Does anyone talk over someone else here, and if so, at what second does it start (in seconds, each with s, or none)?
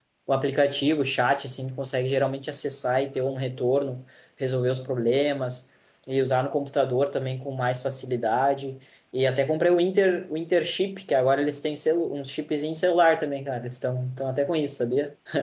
none